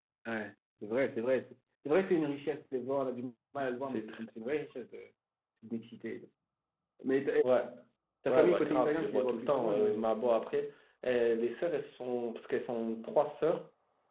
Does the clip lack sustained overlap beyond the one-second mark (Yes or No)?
No